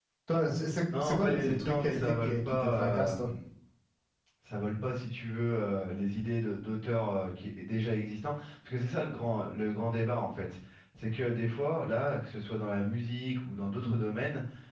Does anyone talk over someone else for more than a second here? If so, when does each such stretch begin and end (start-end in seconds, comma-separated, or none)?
1.0-3.1